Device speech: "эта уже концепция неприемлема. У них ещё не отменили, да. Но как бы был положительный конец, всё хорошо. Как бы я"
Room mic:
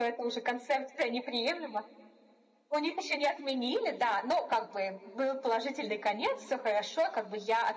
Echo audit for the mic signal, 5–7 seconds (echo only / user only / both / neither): echo only